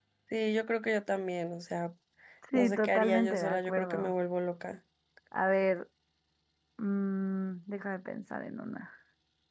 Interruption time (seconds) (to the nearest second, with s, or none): 3 s